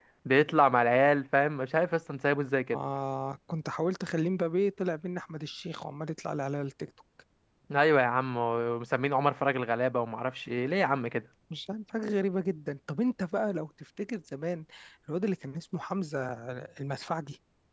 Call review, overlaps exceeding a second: none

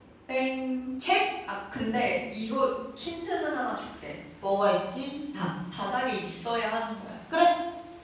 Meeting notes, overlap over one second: none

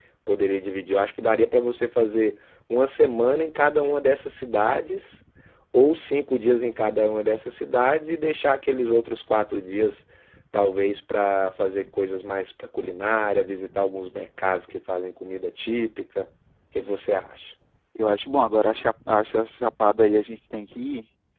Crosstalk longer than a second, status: none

